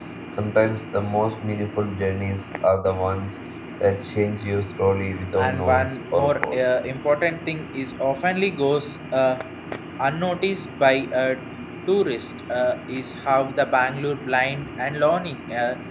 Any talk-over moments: Yes, from 5.3 s

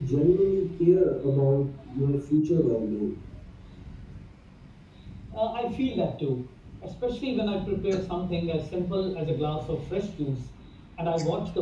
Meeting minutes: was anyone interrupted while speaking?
No

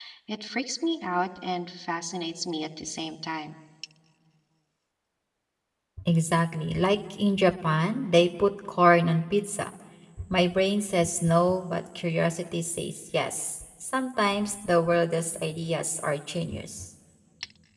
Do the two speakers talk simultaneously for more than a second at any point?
No

